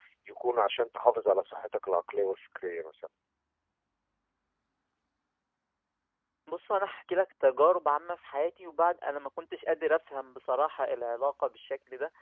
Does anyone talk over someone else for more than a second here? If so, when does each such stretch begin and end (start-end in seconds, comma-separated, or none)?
none